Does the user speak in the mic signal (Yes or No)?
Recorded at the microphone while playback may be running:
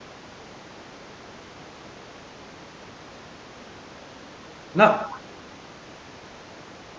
Yes